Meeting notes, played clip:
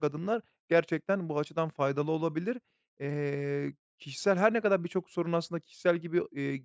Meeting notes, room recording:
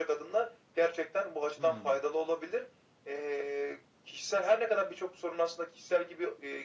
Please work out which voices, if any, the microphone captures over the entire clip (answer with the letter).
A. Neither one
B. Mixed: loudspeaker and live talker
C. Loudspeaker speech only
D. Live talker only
B